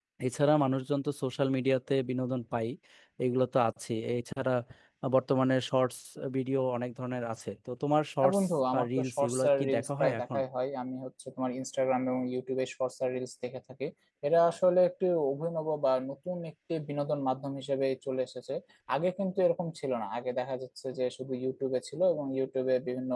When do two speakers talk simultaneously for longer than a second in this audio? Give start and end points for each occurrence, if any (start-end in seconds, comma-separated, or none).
8.2-10.4